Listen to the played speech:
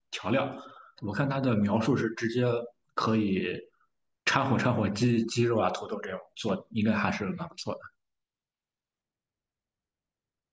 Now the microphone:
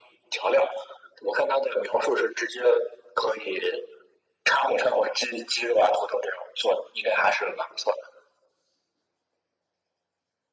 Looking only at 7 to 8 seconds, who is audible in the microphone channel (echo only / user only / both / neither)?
echo only